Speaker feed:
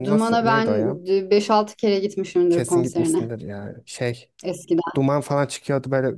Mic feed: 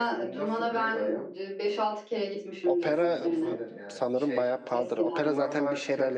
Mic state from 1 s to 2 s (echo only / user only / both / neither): echo only